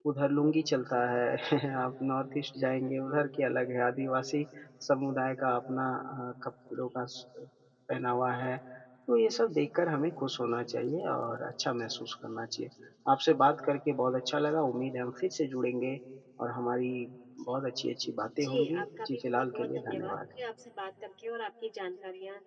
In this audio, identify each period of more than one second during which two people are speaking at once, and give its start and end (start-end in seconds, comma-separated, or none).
18.4-20.2